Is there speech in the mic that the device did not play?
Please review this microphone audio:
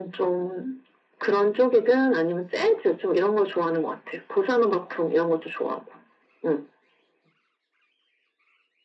No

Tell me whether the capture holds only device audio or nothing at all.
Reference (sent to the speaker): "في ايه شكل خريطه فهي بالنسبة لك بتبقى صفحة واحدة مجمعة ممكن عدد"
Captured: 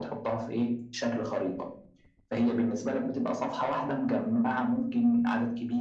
Yes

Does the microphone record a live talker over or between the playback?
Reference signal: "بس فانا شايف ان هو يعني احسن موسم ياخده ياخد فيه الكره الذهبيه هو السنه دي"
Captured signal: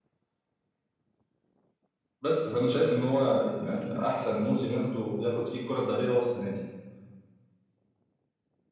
Yes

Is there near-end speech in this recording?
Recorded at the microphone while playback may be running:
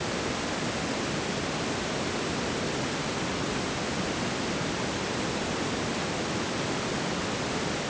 No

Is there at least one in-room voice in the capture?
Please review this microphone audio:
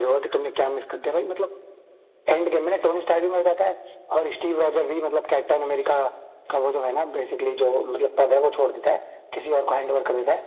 No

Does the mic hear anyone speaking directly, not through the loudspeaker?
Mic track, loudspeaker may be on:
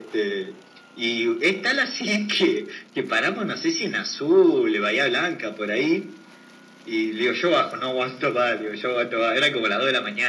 No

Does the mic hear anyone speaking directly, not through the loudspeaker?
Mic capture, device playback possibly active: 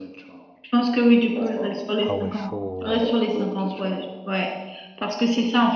Yes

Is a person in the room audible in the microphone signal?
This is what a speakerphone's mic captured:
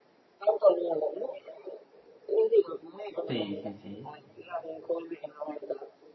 Yes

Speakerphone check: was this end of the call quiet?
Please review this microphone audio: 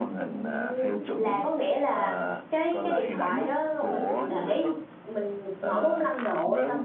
No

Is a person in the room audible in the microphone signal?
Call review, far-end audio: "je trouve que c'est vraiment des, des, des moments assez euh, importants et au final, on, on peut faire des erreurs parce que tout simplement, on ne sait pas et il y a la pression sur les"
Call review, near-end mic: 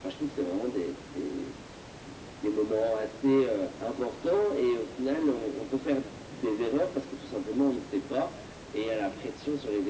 No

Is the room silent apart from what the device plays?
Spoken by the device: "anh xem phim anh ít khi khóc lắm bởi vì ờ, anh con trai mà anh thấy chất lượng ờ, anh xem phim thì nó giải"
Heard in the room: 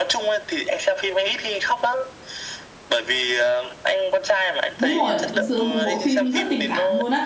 No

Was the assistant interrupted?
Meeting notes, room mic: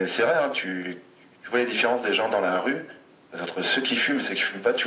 No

